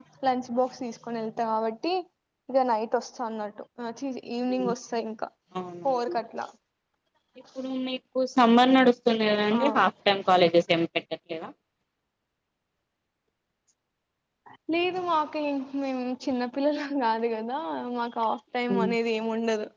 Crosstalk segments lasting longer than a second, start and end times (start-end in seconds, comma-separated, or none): none